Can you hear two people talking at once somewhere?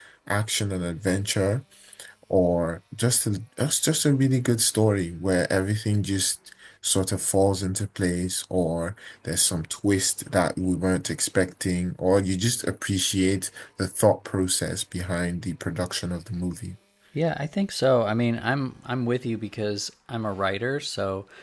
No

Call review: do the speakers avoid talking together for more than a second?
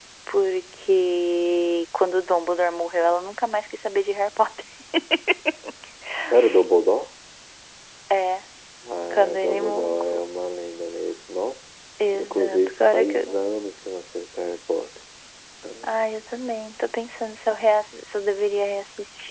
No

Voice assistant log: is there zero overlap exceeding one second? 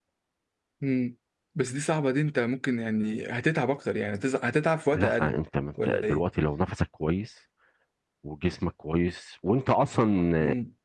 Yes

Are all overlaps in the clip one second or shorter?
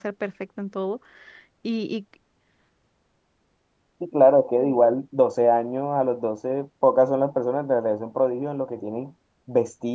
Yes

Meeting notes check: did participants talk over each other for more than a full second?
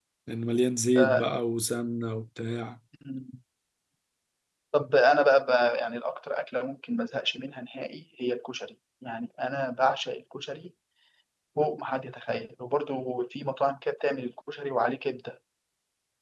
No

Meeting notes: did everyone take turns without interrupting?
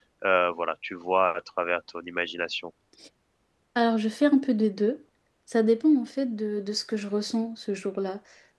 Yes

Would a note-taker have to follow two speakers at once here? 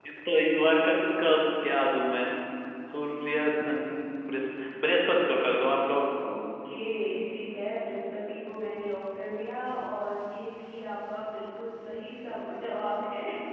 No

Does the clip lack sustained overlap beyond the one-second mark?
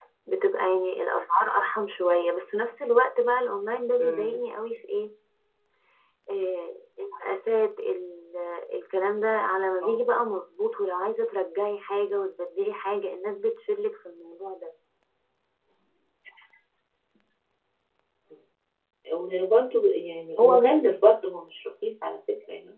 Yes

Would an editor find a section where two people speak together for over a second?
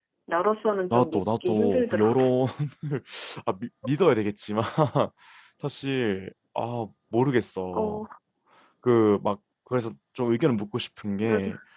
Yes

